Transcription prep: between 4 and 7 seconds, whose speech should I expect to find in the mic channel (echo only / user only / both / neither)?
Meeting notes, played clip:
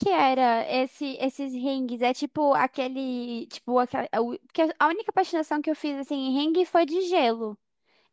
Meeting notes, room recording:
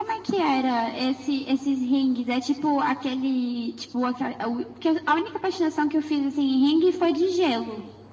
echo only